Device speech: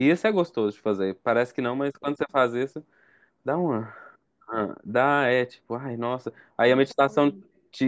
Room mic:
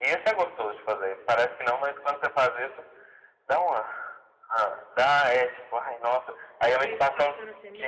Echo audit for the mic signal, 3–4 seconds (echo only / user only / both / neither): echo only